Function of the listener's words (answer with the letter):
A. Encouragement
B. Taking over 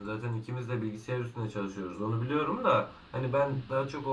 A